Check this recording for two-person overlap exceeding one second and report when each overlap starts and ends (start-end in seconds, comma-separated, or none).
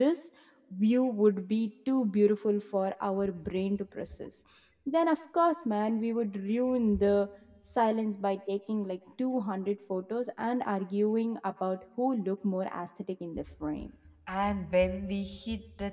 none